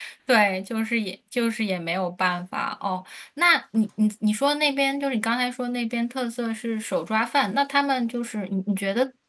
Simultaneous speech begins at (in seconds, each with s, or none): none